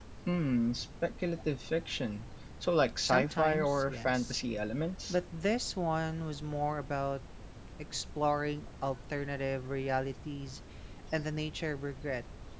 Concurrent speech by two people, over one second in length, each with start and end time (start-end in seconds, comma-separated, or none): 3.0-4.4